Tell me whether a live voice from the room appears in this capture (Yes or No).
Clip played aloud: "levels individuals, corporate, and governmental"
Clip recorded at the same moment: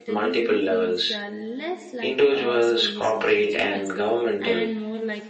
Yes